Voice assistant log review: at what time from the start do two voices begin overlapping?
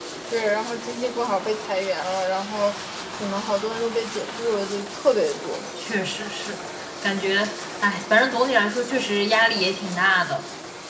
none

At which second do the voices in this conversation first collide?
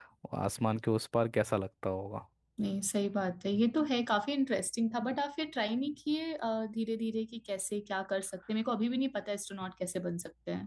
none

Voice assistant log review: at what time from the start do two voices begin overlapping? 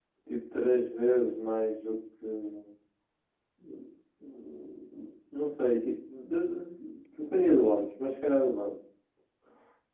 none

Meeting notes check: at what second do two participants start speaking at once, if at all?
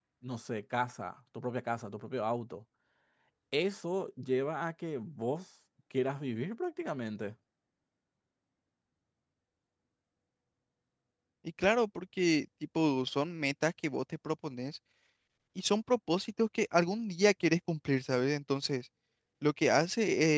none

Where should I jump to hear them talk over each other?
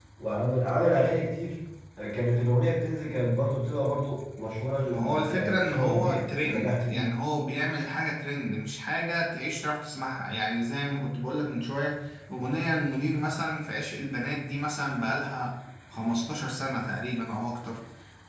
5 s

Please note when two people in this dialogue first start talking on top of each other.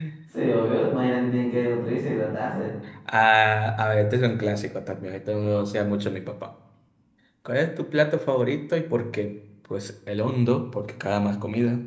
none

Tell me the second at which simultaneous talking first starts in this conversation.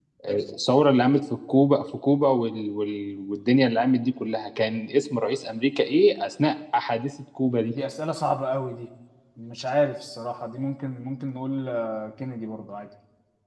none

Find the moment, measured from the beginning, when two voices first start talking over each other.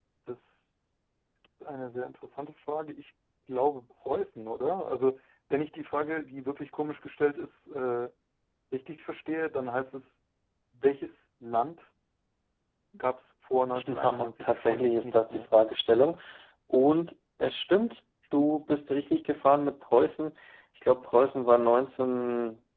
14 s

